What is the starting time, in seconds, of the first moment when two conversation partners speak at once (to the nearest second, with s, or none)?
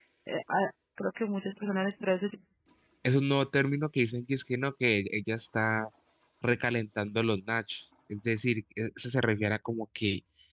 none